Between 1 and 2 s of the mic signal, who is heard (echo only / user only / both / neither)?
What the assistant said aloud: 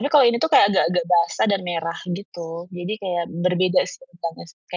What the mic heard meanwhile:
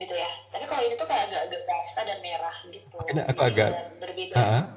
echo only